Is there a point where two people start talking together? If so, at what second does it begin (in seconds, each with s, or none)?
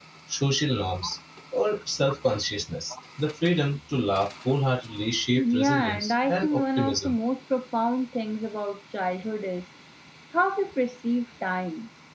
5.4 s